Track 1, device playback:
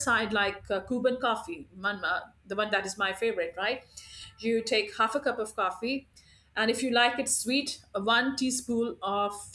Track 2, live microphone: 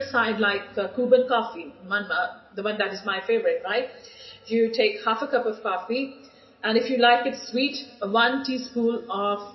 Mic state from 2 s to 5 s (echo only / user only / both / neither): echo only